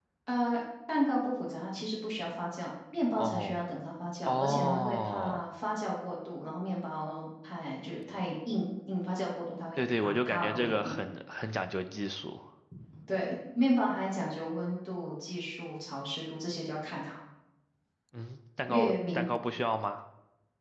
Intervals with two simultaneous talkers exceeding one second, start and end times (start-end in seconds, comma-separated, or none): 4.2-5.5, 9.8-11.1